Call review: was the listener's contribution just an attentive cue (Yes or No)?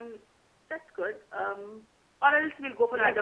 No